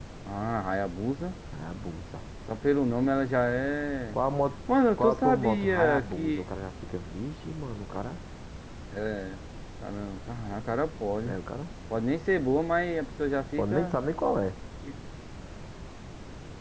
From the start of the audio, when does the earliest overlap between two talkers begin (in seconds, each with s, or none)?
4.9 s